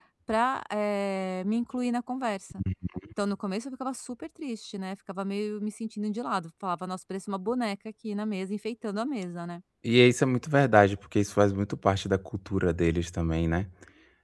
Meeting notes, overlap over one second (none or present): none